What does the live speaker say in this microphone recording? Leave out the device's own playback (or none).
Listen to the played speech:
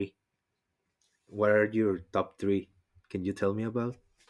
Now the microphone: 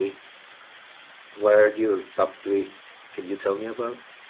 none